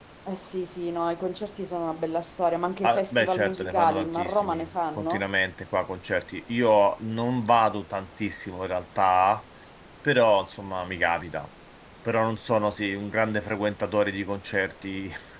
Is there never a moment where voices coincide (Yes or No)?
No